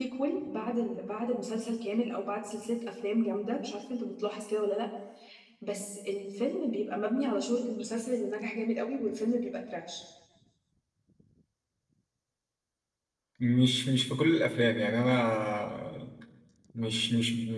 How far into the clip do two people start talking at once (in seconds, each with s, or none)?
none